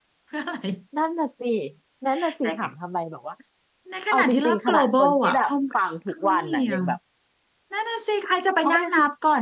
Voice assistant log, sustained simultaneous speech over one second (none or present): present